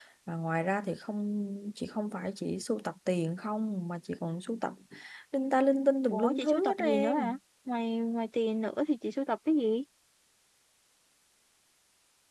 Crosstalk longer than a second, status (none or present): present